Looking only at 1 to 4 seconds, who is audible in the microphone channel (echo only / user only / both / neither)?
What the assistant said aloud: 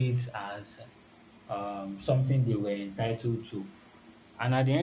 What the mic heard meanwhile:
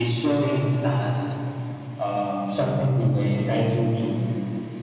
echo only